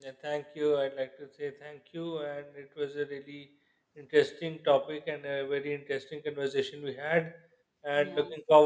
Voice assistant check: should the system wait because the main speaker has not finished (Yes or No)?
Yes